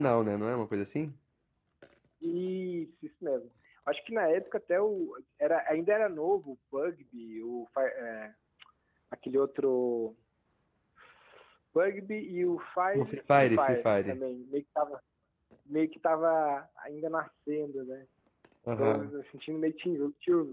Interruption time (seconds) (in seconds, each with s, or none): 12.9 s